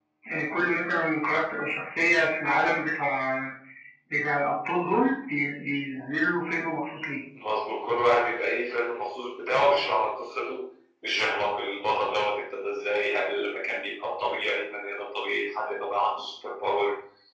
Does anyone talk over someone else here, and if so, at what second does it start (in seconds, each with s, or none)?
none